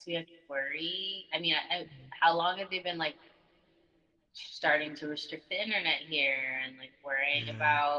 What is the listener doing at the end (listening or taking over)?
listening